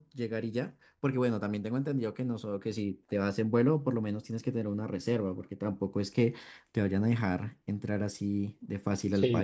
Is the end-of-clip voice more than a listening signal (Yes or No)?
Yes